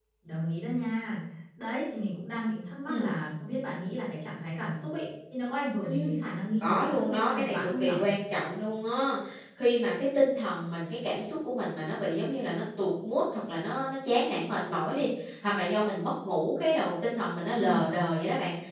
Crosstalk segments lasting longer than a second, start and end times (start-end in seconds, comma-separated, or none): 6.6-8.0